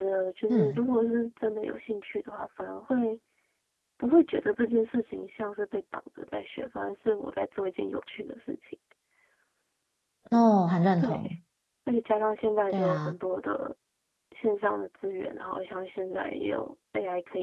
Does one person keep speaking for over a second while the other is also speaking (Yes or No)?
No